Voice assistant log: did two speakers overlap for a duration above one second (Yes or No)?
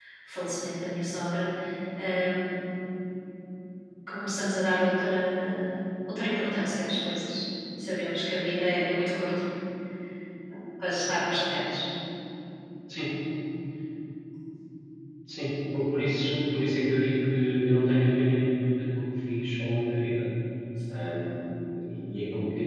No